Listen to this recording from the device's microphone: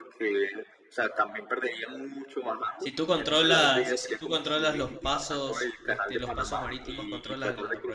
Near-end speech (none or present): present